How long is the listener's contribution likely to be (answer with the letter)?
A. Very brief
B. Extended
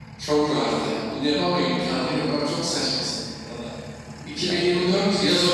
A